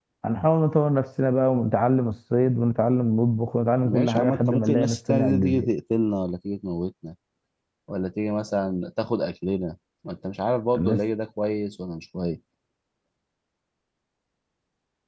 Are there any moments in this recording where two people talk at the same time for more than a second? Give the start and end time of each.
3.8-5.7

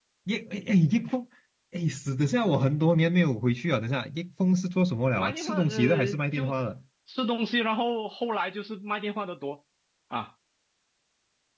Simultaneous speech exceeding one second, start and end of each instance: 5.2-6.5

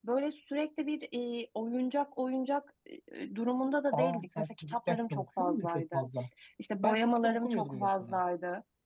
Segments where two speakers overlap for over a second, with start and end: 3.9-6.0, 6.8-8.2

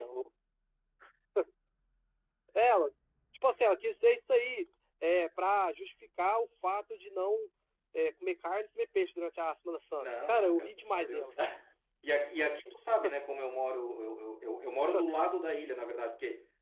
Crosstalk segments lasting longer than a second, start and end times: 10.0-11.3

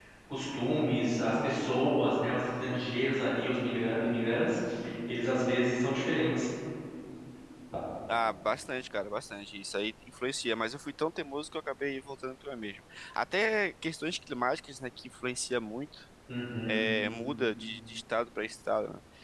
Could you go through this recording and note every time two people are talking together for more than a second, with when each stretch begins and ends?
none

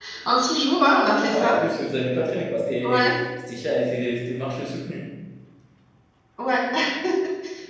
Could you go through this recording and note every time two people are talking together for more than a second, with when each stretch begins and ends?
none

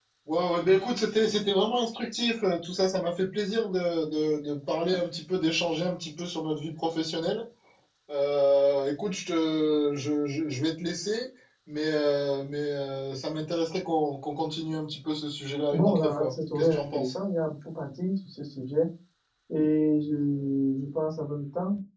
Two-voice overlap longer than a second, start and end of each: 15.7-17.2

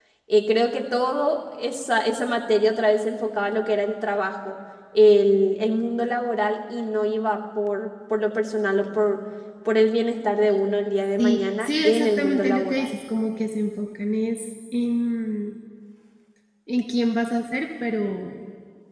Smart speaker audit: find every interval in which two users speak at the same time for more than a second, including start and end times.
11.2-12.9

